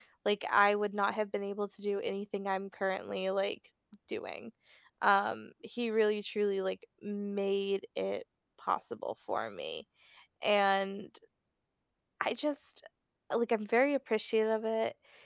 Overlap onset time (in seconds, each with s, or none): none